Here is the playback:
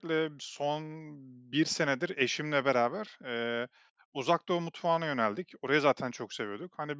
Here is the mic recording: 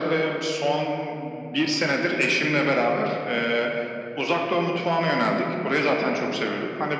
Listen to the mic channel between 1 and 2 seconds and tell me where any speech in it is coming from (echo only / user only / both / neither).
echo only